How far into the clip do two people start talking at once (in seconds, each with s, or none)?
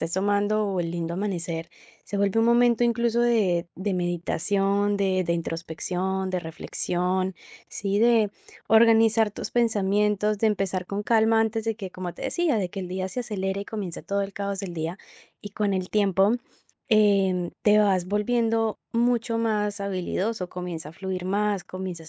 none